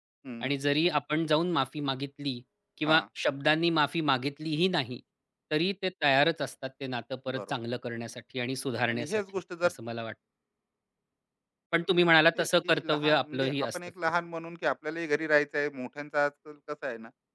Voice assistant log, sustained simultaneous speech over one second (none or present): present